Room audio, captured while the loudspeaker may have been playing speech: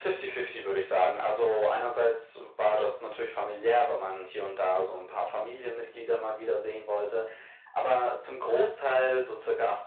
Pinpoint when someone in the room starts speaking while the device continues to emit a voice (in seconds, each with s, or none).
none